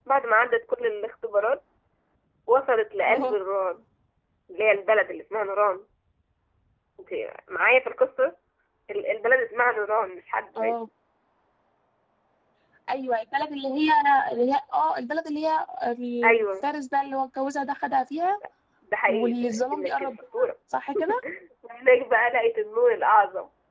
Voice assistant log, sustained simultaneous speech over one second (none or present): present